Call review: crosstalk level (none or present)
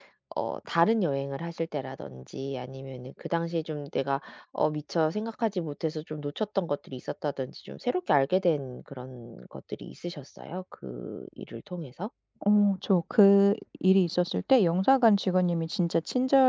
none